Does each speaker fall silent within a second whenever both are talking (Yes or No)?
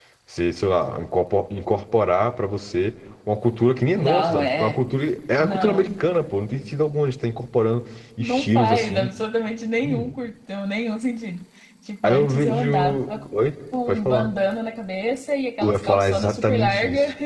No